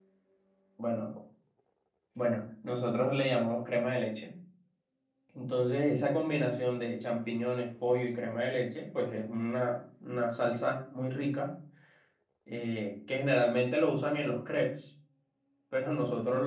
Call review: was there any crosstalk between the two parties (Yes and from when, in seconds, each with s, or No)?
No